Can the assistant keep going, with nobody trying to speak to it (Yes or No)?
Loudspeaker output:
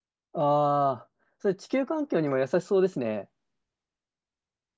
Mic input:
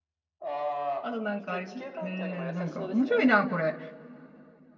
No